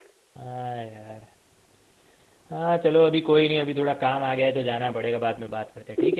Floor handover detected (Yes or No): Yes